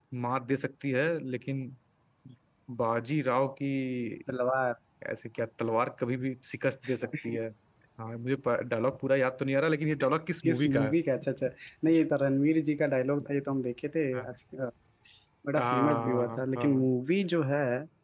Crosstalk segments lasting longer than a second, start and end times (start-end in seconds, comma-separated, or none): 15.6-16.9